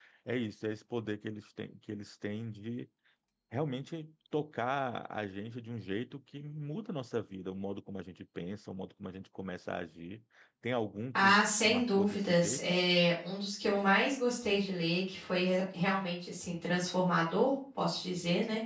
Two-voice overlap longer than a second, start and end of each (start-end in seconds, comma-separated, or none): 11.1-12.6